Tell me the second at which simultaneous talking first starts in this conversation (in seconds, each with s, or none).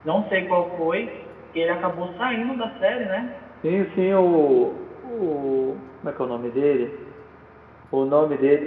none